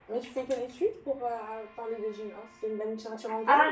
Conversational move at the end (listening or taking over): taking over